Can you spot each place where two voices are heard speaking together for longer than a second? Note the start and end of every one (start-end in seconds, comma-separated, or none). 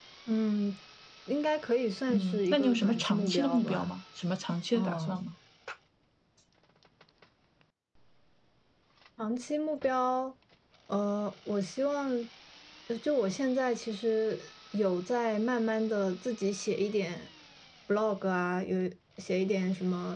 2.1-3.9